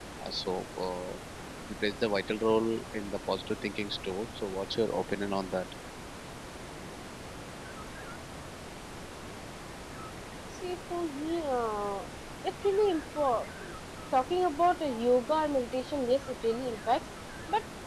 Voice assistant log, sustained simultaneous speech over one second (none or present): none